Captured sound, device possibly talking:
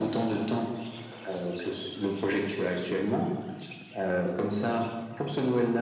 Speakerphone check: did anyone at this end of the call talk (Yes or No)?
No